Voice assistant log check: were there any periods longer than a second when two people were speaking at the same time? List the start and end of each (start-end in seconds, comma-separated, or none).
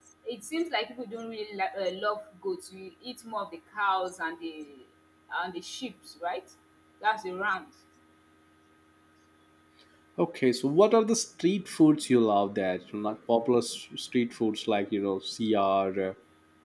none